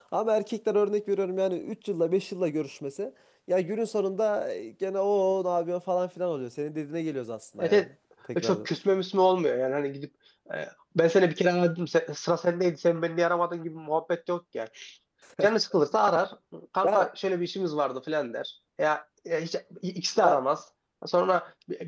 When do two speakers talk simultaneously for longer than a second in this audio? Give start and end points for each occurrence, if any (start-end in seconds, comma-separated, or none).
none